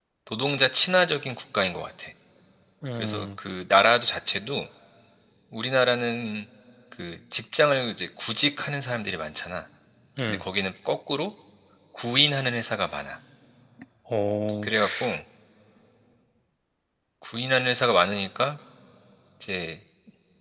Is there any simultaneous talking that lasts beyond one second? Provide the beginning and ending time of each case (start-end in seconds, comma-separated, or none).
none